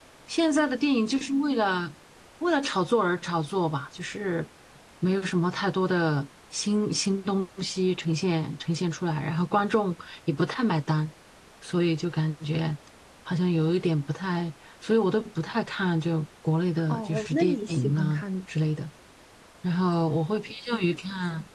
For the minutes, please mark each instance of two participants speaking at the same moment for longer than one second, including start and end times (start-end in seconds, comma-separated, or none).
16.9-18.2